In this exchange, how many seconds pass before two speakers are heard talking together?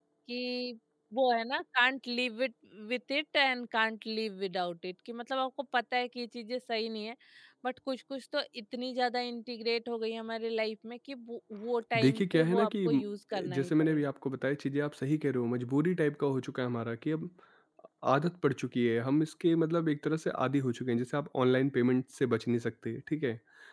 11.9 s

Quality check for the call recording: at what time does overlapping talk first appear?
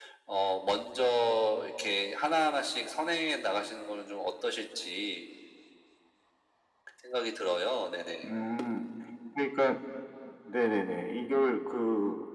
none

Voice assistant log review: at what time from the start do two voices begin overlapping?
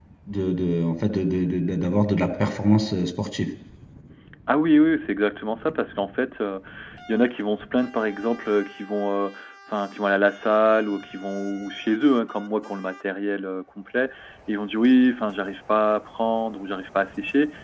none

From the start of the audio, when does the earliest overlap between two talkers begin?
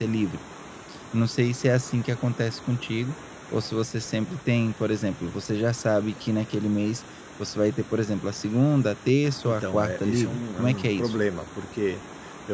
9.4 s

